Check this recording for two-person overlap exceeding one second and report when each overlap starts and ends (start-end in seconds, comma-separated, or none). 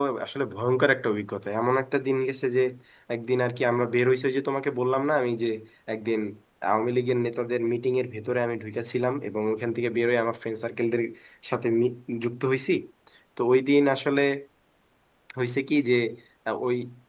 none